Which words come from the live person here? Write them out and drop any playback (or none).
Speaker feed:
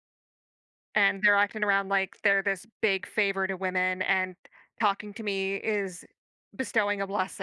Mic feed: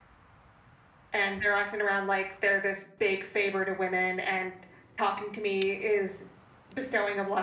none